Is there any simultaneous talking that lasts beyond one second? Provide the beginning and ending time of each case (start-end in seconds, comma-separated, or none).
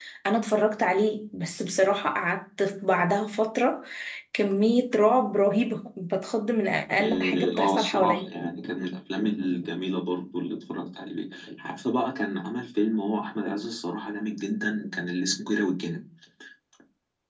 7.0-8.3